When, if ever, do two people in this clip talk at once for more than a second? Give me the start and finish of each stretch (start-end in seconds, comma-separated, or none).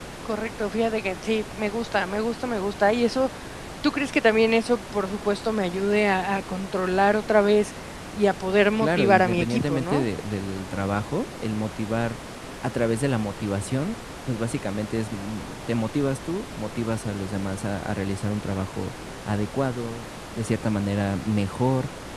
8.8-10.1